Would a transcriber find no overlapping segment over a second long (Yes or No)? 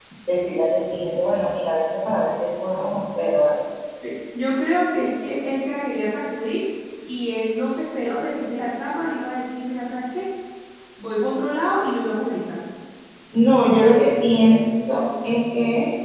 Yes